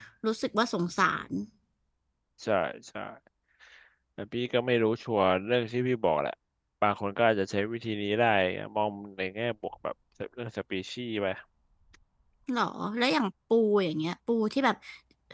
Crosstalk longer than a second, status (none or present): none